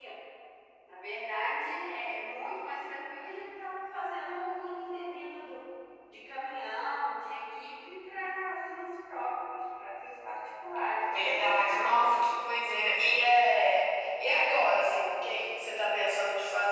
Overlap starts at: 11.1 s

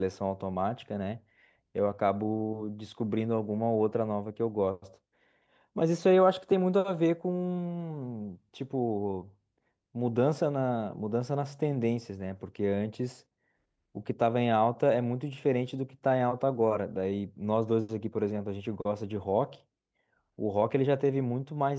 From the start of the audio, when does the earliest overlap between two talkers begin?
none

